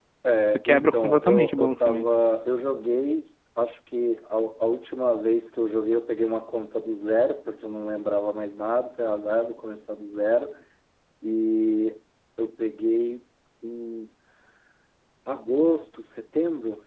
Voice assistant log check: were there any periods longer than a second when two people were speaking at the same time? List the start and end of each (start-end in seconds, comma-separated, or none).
0.7-2.1